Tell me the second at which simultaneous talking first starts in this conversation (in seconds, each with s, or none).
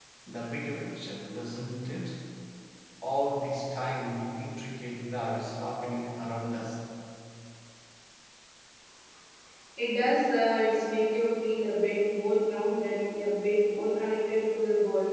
none